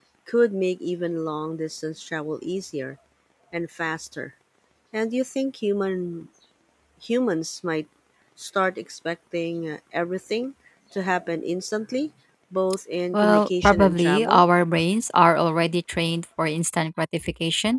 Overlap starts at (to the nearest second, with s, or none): 13 s